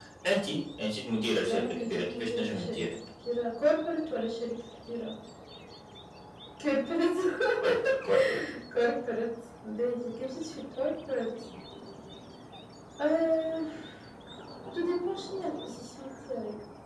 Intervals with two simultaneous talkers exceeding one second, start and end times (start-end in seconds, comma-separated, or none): 1.5-2.8